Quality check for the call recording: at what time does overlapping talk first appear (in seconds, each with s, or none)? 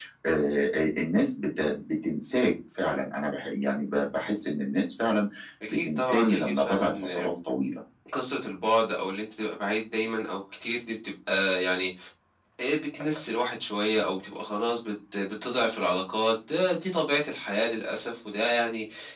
5.7 s